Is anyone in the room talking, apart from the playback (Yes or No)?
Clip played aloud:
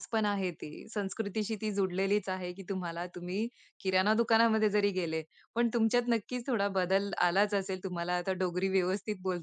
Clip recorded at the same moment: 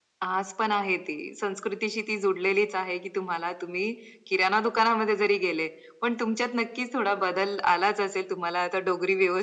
No